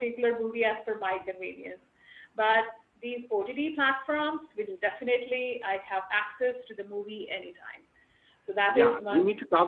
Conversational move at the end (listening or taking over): taking over